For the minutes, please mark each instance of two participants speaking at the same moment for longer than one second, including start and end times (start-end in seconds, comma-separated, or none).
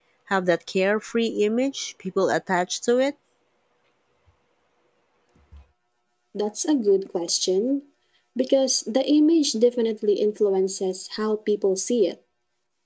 none